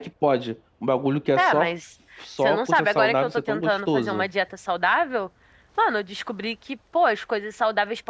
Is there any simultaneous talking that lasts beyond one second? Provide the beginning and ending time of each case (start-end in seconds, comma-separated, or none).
2.4-4.3